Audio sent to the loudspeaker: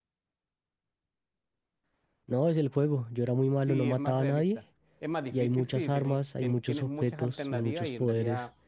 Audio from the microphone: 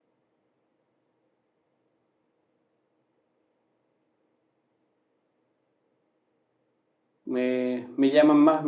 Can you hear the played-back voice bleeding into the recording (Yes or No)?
No